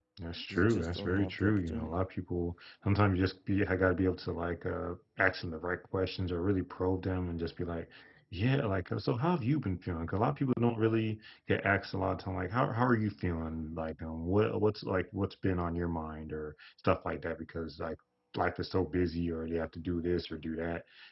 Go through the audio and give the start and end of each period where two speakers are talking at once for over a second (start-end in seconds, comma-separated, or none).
0.5-1.9